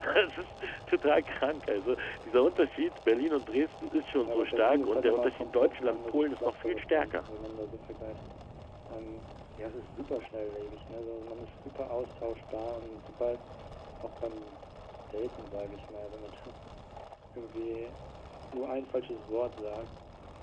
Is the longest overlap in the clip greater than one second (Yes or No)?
Yes